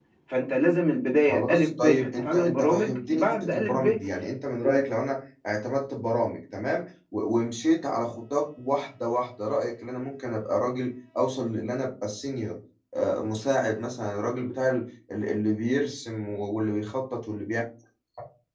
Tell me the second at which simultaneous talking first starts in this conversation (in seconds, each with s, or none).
1.3 s